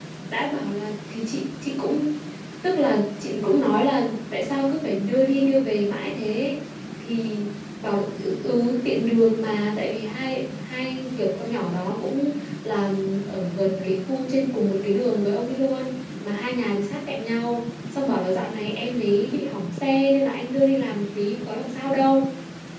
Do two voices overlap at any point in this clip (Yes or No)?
No